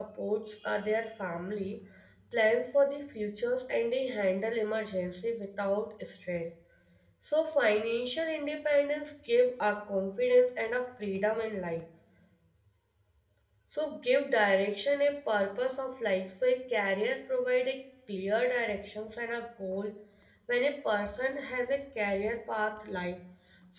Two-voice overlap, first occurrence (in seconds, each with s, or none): none